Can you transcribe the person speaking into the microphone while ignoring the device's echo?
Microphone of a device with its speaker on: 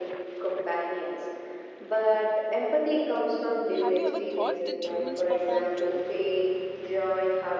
have you ever thought that humans perform too?

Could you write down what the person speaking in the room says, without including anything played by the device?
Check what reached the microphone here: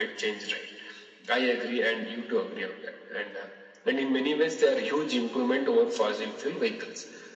none

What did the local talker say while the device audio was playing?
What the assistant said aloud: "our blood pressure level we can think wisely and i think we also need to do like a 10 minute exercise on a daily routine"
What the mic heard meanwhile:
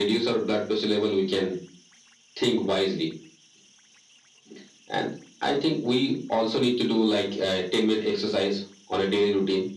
none

